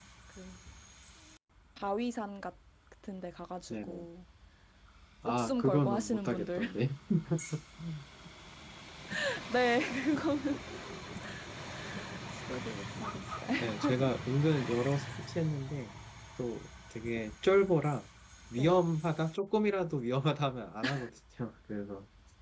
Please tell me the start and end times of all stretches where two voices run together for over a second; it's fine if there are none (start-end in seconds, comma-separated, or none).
5.2-6.6